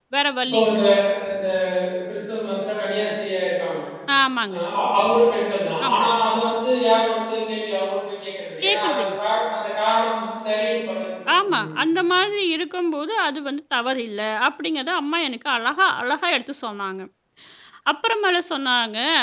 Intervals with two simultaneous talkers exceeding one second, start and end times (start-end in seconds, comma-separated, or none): none